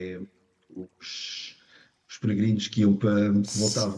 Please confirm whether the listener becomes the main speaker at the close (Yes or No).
No